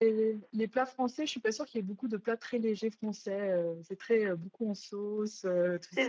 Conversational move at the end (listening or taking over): taking over